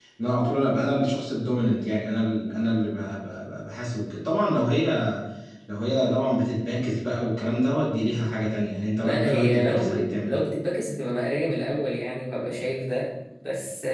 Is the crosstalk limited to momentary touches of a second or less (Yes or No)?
No